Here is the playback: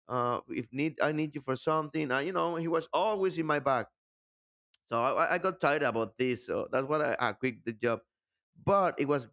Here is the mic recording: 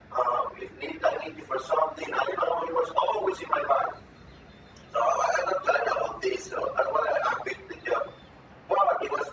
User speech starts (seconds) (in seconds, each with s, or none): none